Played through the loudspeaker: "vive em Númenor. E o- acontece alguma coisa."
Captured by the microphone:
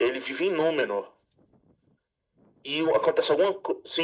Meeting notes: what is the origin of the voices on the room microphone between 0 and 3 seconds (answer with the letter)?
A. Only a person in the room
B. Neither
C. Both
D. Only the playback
D